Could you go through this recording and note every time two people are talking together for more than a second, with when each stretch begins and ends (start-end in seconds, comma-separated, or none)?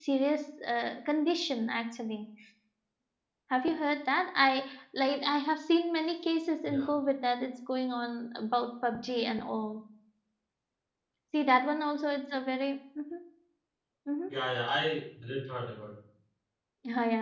none